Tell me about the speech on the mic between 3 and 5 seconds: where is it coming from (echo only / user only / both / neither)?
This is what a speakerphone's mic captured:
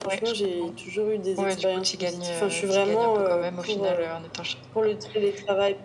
echo only